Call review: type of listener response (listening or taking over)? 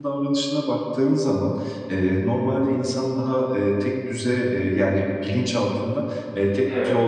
listening